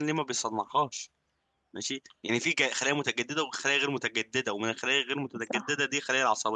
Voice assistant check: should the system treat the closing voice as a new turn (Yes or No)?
No